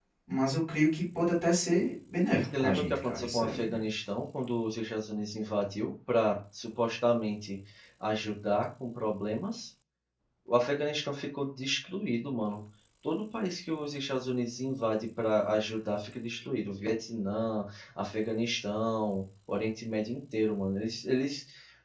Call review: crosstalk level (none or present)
present